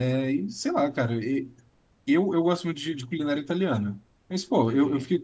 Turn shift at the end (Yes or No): No